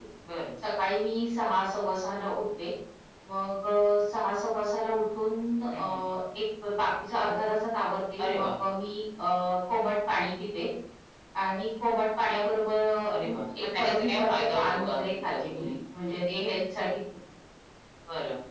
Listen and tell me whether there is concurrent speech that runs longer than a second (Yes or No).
Yes